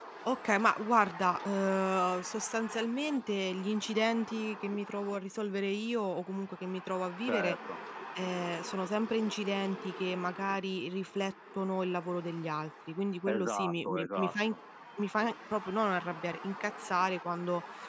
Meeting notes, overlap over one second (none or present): present